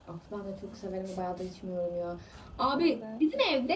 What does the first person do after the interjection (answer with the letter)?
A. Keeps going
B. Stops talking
A